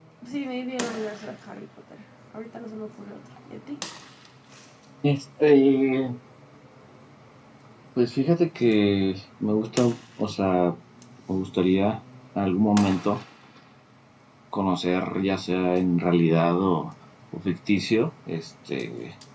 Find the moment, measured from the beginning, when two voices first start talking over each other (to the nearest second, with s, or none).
none